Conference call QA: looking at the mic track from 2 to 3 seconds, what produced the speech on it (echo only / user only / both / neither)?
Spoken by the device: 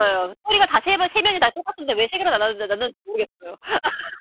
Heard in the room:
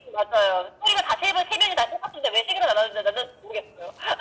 echo only